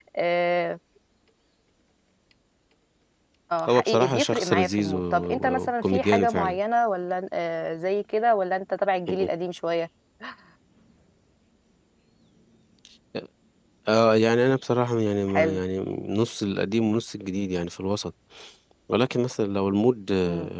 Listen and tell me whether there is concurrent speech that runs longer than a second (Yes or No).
Yes